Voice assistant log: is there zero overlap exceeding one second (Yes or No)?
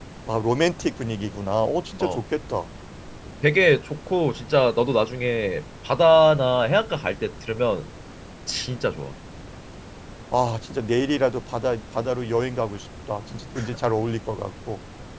Yes